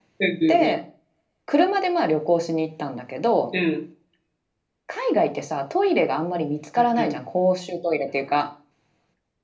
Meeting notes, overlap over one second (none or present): none